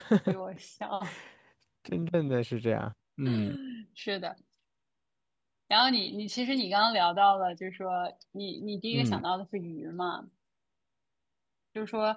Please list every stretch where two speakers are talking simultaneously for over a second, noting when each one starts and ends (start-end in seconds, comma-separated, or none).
none